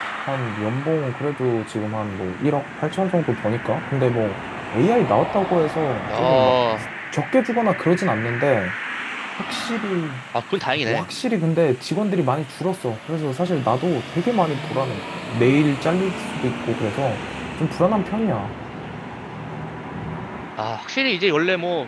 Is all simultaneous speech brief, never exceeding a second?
Yes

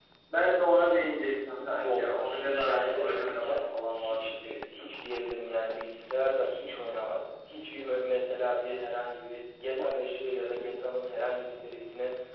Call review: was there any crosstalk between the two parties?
Yes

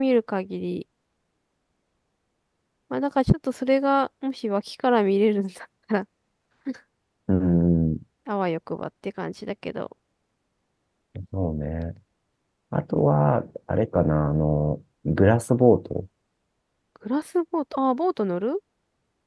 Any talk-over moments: No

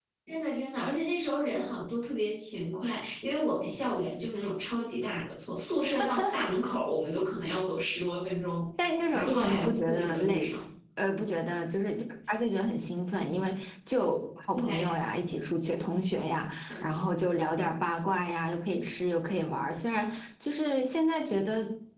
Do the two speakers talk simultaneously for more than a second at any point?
Yes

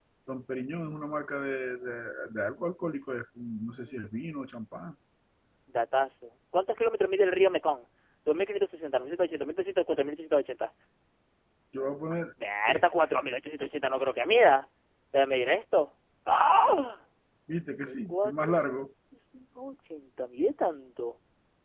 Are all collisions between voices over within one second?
No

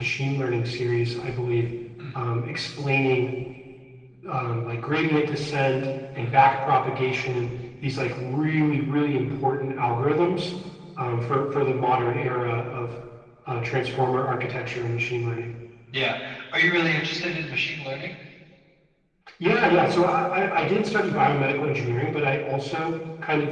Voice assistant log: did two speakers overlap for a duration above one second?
No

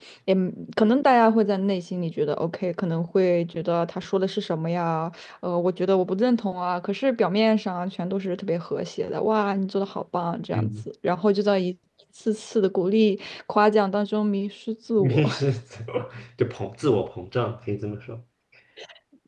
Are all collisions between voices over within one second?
Yes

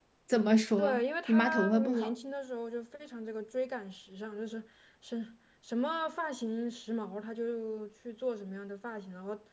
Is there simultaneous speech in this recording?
Yes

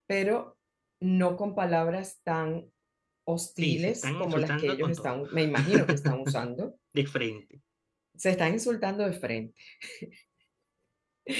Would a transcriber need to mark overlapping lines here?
Yes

